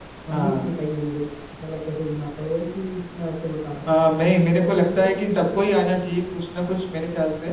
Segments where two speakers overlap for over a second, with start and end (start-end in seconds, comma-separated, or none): 4.6-6.0